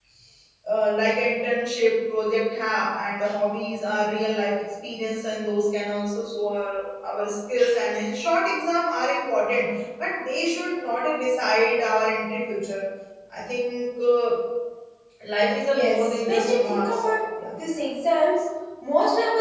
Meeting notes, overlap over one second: present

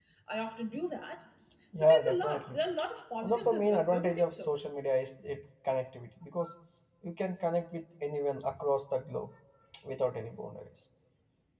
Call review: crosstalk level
present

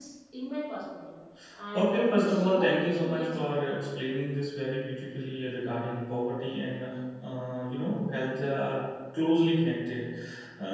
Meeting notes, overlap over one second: present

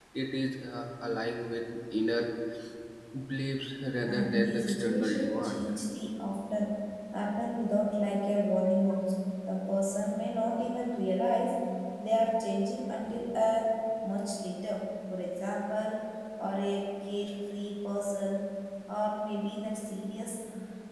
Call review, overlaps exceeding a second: present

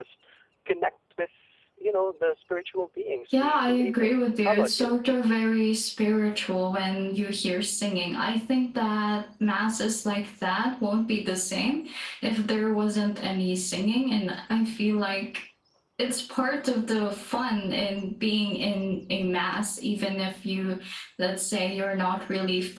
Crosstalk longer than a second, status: present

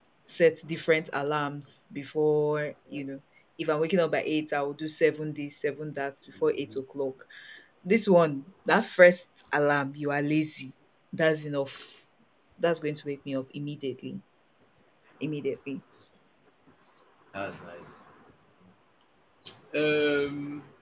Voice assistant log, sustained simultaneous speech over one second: none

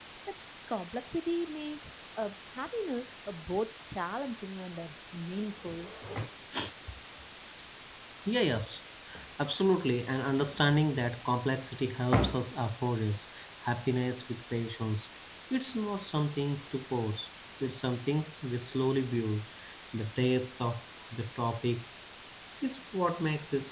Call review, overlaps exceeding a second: none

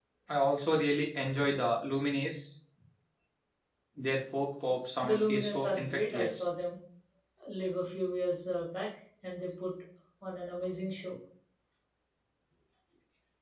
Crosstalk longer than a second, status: present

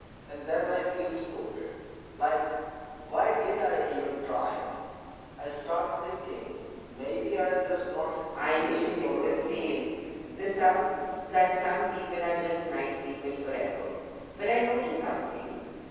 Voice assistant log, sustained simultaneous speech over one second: present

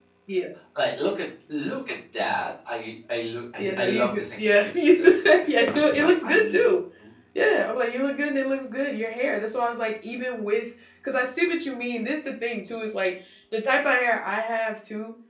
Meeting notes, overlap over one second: present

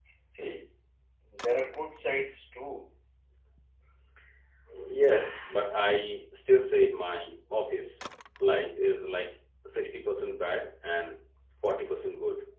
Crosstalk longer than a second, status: none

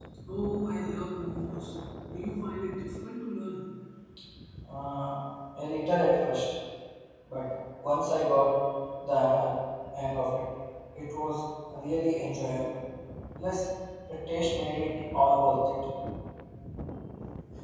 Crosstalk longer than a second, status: none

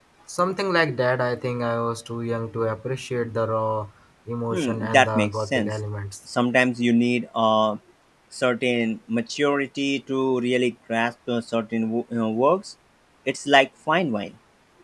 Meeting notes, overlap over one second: present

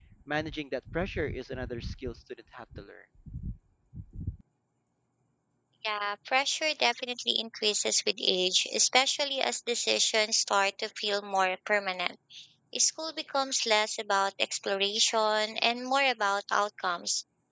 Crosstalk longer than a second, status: none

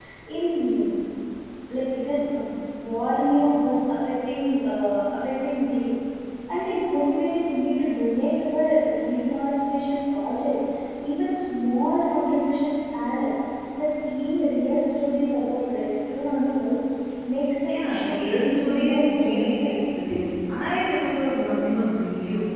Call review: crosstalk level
present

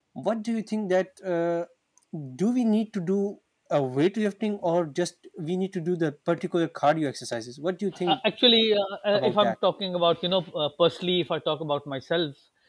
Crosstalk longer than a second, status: none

